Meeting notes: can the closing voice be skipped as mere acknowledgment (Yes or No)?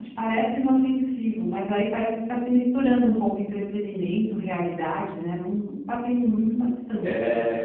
No